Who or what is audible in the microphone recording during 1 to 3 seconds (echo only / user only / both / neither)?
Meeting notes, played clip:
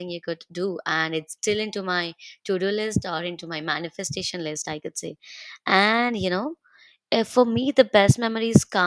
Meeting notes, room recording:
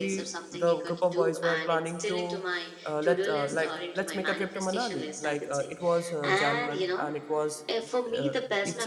both